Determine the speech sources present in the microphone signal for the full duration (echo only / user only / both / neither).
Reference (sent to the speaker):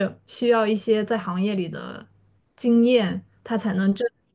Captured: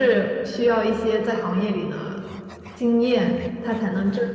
echo only